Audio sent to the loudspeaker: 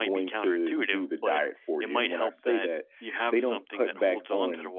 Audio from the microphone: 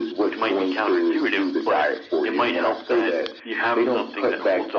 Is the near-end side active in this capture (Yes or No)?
No